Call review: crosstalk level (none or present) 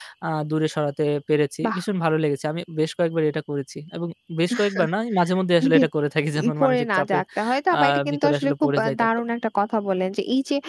present